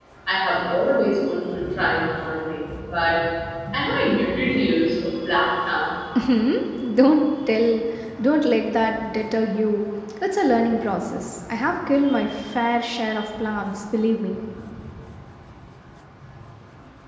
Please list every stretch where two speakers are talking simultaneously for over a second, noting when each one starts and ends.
none

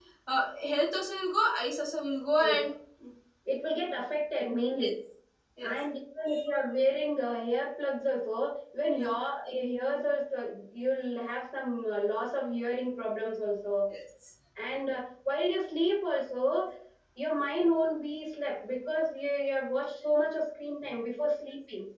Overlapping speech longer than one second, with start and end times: none

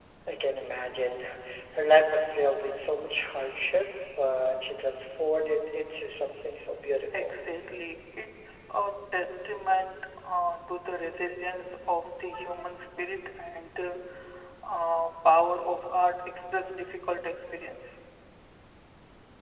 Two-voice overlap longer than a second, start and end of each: none

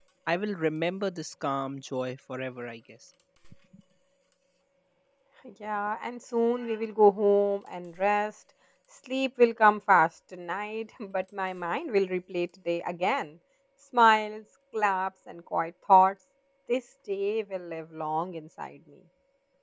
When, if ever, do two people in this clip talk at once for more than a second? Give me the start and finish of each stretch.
none

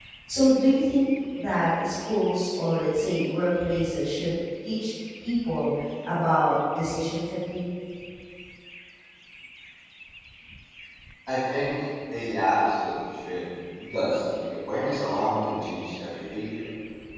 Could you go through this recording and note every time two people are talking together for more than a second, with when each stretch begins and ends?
none

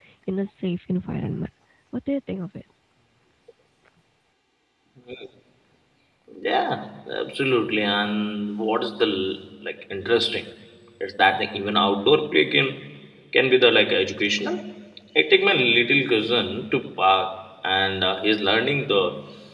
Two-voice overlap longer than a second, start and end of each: none

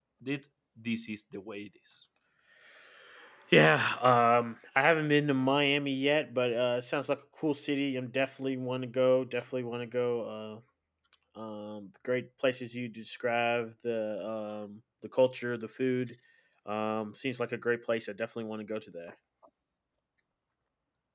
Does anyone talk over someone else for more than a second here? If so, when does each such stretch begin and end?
none

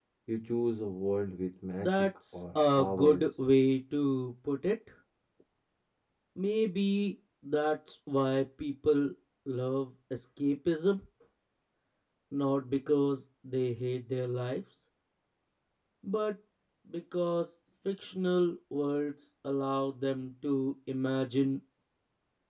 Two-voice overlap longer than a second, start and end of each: 1.8-3.3

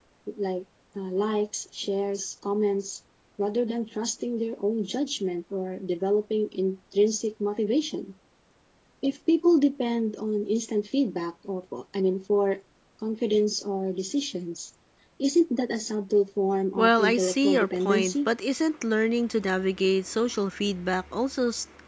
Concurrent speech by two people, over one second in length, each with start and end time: 16.8-18.3

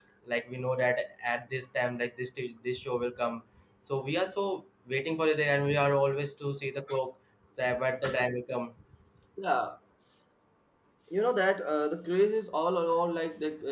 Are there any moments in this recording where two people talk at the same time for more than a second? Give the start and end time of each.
none

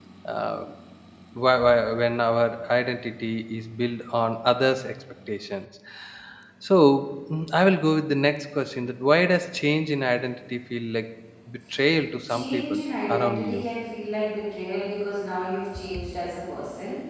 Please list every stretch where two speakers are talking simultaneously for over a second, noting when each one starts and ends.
12.3-13.6

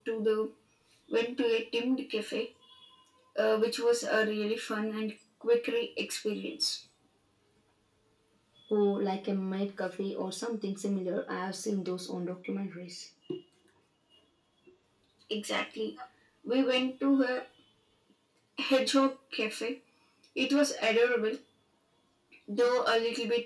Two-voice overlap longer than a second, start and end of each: none

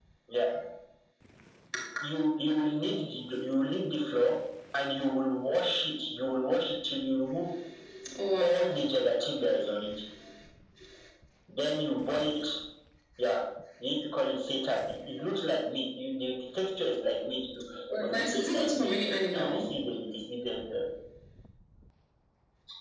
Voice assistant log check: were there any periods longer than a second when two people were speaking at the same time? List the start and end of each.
18.0-19.9

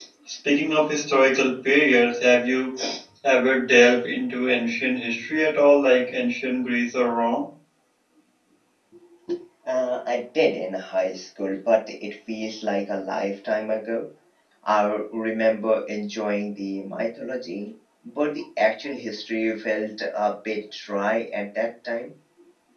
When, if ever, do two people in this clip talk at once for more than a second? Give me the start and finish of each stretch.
none

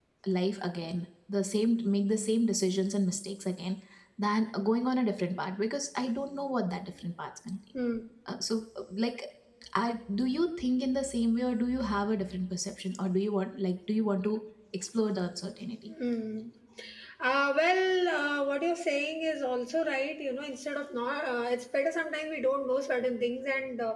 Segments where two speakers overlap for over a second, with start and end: none

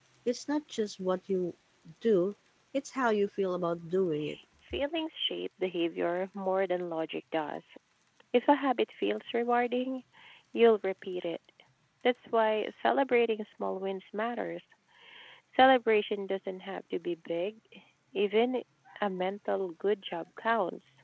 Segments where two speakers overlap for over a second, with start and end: none

